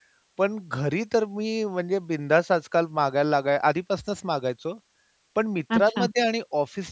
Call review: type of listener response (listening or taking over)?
listening